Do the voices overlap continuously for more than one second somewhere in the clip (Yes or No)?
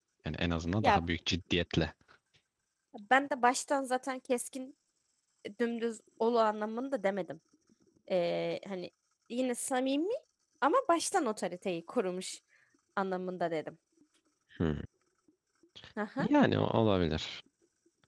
No